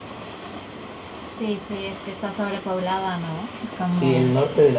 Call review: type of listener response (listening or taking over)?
taking over